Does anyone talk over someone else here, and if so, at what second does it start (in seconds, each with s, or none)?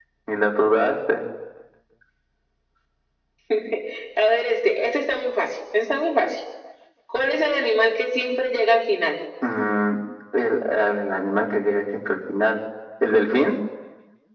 none